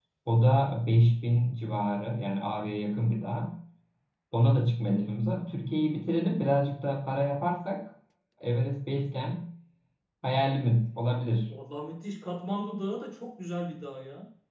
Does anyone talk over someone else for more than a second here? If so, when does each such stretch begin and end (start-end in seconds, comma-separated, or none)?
none